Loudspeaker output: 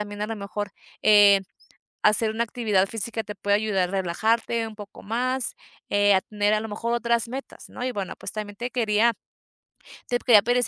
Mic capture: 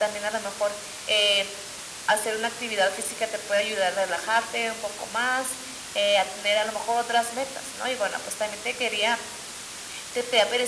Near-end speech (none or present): none